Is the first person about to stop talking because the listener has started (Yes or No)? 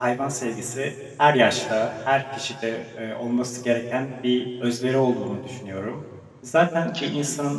No